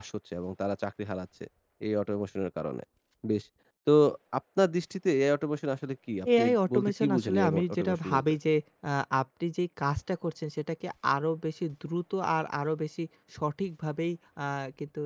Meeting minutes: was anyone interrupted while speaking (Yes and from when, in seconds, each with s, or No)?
Yes, from 6.2 s